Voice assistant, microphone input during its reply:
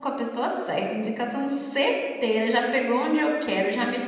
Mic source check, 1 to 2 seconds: user only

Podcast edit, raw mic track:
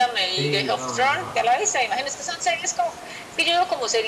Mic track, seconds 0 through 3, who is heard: both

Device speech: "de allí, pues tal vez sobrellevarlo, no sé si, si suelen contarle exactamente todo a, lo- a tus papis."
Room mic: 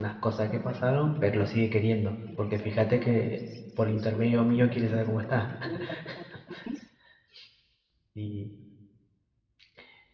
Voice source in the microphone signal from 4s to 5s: both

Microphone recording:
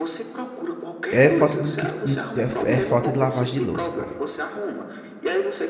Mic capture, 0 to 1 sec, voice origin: echo only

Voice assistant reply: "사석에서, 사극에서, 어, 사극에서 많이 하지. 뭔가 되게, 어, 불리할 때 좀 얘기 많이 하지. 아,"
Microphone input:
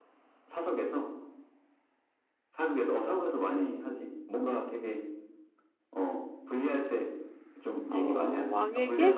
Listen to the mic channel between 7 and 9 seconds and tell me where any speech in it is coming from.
both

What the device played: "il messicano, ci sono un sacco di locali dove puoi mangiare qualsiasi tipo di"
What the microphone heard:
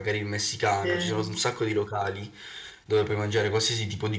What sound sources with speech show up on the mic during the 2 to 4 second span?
echo only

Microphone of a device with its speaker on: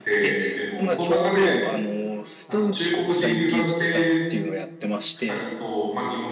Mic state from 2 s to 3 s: both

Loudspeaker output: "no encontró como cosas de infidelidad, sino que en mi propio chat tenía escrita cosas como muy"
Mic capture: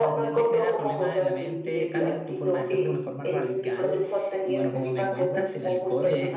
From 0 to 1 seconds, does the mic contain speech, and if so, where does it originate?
both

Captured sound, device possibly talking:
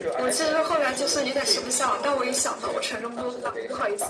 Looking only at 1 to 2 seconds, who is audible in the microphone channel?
echo only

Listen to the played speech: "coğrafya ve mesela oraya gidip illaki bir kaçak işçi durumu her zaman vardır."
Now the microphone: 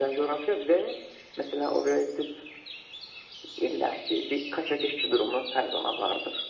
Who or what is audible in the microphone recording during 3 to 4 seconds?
echo only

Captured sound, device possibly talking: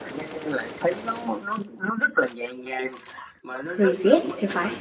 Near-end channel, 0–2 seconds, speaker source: echo only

